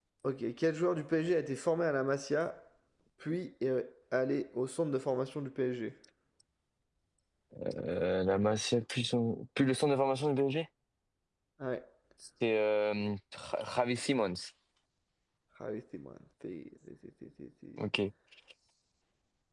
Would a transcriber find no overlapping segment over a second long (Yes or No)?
Yes